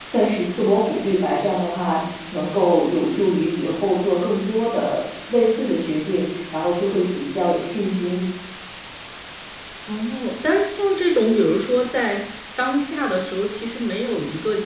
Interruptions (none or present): none